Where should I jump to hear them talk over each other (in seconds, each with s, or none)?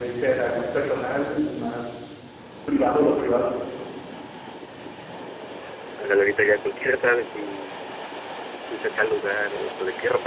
none